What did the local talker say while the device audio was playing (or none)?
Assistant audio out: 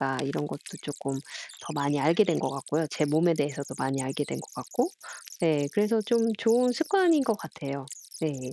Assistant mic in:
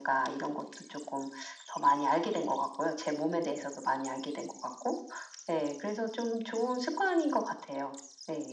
none